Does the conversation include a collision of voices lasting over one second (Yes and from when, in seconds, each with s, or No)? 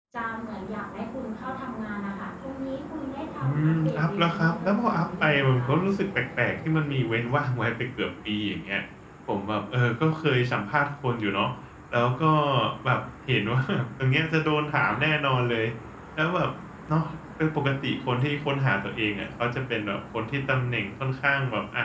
Yes, from 3.4 s